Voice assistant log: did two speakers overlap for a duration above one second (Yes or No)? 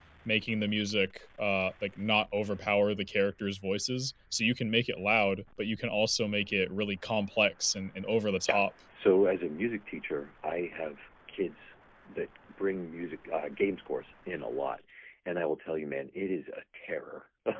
No